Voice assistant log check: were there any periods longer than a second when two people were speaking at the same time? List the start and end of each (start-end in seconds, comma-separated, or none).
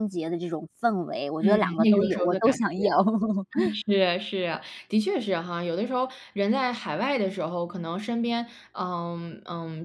1.4-2.9